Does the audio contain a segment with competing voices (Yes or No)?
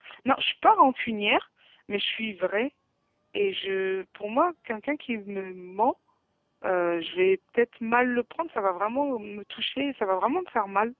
No